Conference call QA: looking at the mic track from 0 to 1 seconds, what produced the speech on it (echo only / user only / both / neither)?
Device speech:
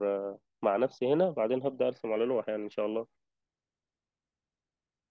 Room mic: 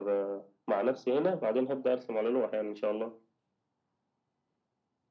echo only